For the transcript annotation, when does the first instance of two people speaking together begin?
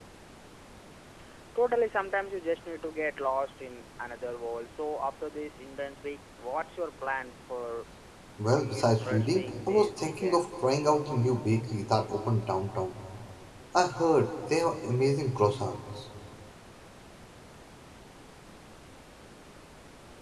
8.6 s

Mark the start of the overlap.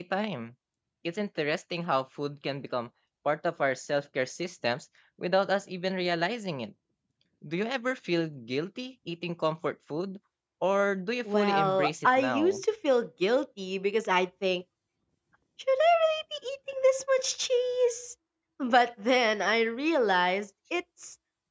11.3 s

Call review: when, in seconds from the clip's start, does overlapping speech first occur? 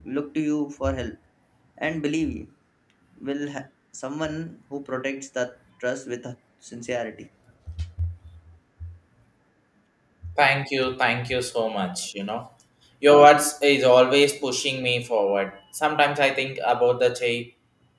none

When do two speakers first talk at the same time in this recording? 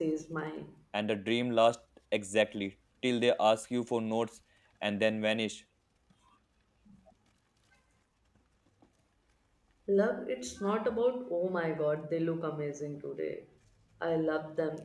none

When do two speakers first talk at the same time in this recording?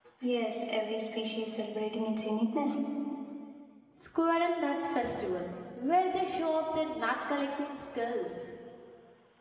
none

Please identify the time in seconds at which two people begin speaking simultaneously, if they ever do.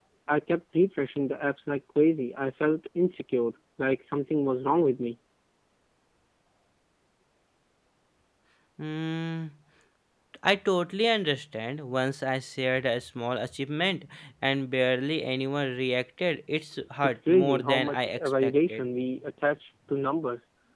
17.0 s

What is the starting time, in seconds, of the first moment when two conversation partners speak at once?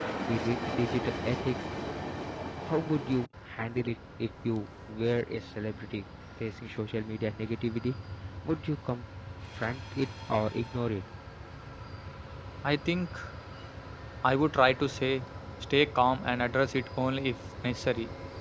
none

